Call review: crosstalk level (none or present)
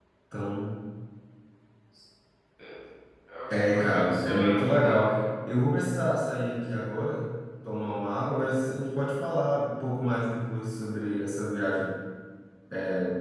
present